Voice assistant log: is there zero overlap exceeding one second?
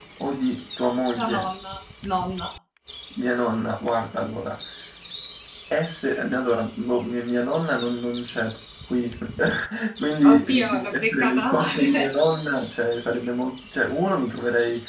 No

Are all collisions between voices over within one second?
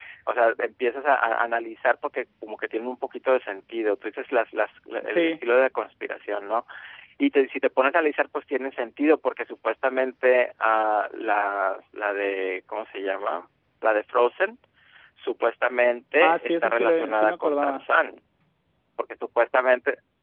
No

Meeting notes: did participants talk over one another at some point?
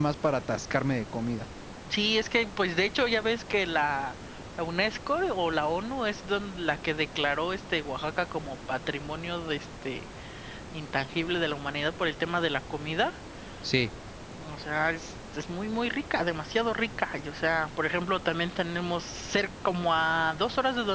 No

